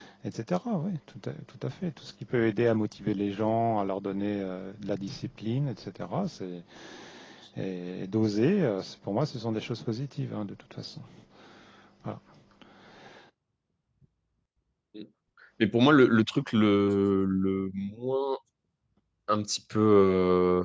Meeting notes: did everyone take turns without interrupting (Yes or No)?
Yes